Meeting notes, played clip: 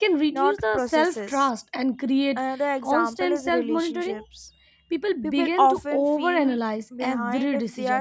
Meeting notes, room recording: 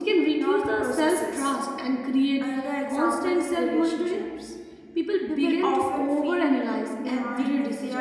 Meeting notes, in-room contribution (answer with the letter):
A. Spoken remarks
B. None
B